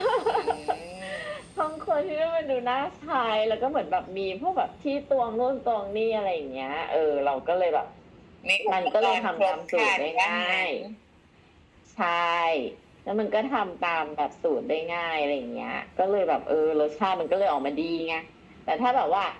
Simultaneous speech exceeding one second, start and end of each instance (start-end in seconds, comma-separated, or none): 8.7-10.7